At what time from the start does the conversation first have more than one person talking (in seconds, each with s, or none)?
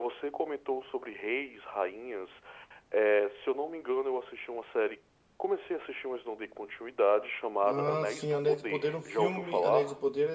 7.6 s